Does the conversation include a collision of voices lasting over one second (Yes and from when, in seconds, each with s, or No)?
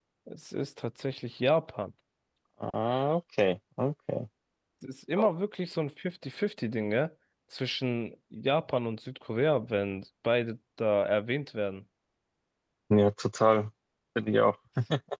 No